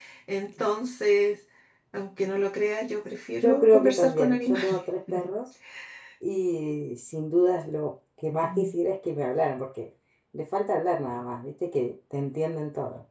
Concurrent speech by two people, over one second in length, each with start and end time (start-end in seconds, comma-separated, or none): 3.4-4.8